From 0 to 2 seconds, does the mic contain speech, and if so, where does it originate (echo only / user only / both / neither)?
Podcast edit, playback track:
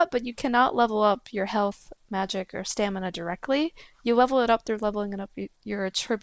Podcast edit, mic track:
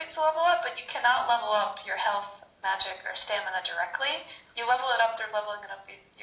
echo only